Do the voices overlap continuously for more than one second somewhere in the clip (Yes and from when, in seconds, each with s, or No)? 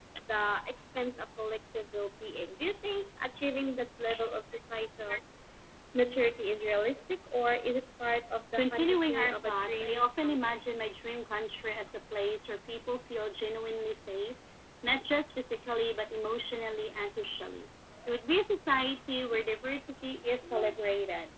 Yes, from 8.6 s